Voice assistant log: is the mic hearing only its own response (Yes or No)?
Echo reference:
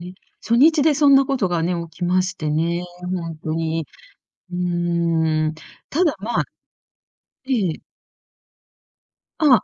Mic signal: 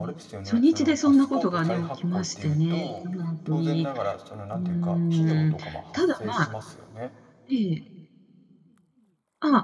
No